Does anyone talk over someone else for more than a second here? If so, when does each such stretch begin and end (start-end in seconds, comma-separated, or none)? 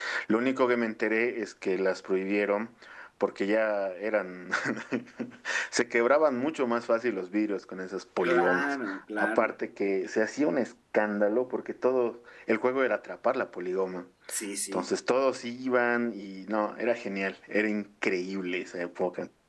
8.2-9.5